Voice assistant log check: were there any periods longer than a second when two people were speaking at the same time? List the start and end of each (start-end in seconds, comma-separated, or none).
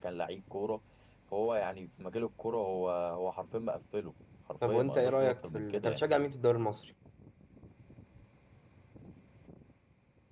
4.7-6.0